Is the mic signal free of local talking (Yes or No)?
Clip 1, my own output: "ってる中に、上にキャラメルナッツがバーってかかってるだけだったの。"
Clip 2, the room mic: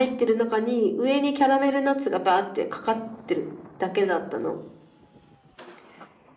Yes